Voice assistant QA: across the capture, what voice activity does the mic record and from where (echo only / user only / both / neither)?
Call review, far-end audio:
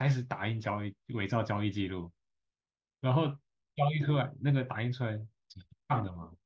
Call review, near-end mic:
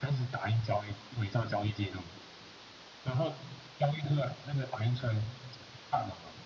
echo only